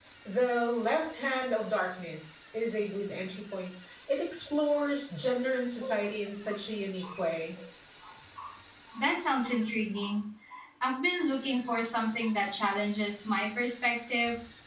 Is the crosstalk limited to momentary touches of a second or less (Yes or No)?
Yes